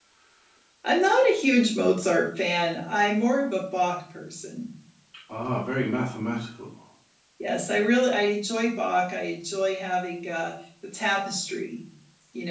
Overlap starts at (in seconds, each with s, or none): none